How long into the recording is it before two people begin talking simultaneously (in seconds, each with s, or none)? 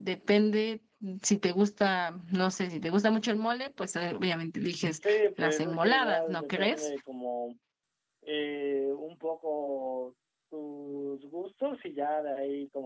5.0 s